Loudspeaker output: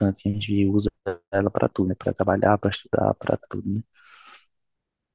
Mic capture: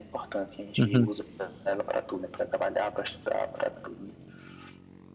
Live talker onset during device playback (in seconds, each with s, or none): 0.8 s